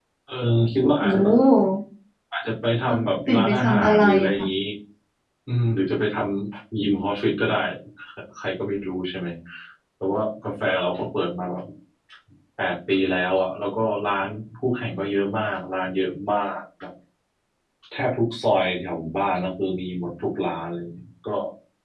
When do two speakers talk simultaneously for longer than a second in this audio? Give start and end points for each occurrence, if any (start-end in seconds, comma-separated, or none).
2.9-4.5